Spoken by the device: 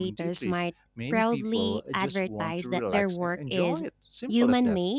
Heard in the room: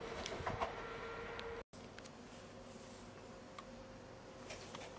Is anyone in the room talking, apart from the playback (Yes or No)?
No